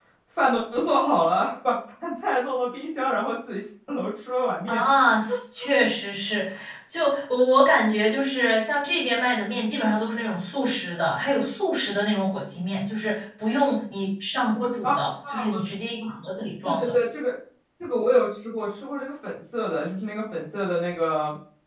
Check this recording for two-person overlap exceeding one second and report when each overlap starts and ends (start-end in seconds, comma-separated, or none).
none